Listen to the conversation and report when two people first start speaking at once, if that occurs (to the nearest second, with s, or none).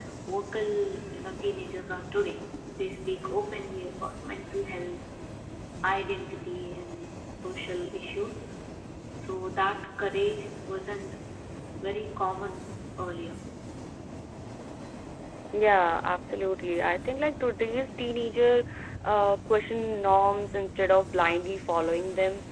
none